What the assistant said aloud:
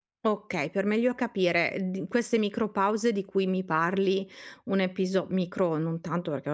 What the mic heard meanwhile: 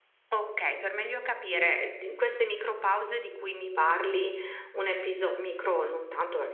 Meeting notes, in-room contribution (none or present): none